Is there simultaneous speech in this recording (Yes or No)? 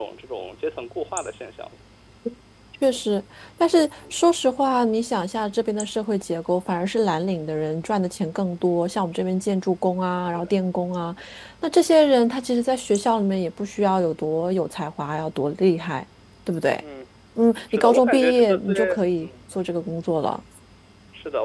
Yes